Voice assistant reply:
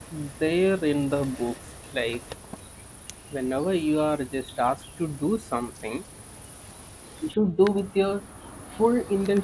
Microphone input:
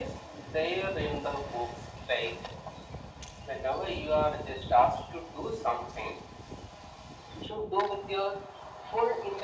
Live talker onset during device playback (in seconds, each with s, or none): none